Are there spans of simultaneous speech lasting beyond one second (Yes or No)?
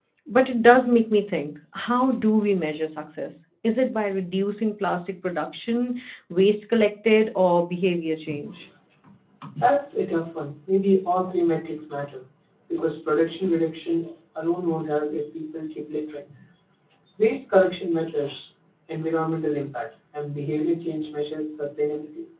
No